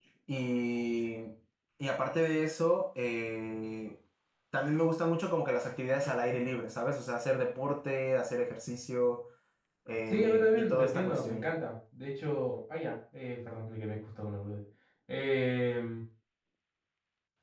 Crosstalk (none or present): present